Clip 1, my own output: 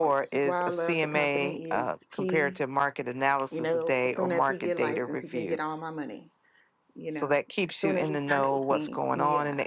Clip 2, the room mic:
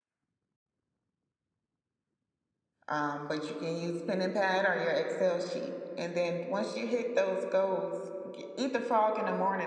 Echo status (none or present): none